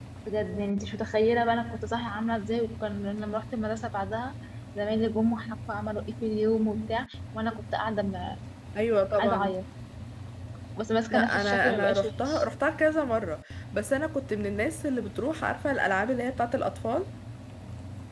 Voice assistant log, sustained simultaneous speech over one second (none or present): present